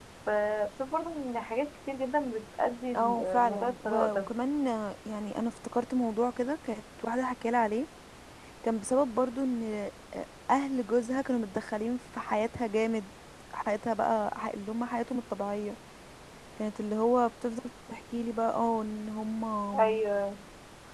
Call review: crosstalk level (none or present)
present